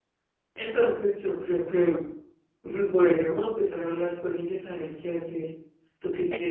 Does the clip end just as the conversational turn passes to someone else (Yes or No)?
Yes